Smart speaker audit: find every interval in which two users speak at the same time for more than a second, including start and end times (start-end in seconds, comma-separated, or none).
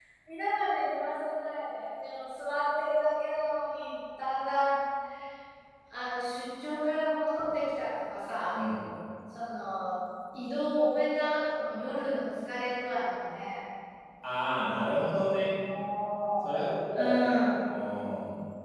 none